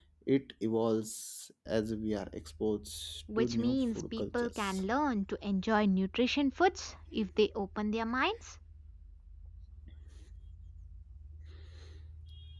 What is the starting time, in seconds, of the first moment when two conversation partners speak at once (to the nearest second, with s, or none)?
3 s